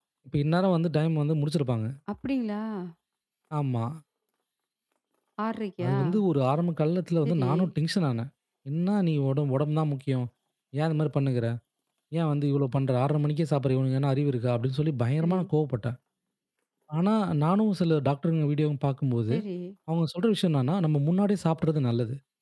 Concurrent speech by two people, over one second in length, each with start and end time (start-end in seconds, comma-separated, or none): none